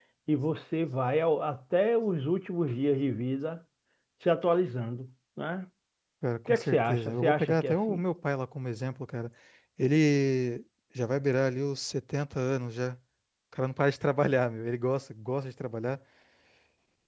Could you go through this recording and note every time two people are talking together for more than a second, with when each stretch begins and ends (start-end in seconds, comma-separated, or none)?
6.5-8.0